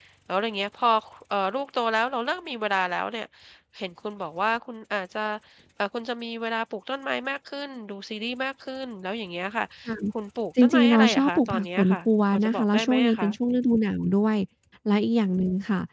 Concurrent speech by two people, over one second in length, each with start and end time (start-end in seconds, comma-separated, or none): 10.6-13.4